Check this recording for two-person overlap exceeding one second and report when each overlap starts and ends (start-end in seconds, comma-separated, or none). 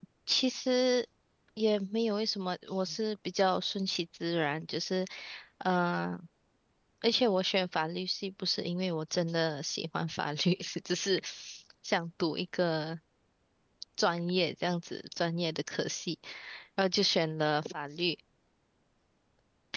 none